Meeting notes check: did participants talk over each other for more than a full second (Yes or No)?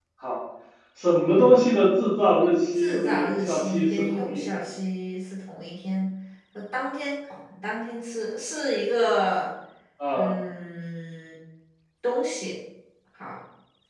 Yes